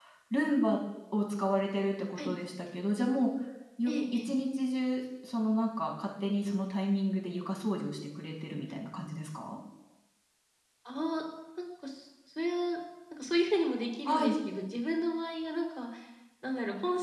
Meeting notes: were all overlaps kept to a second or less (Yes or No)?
Yes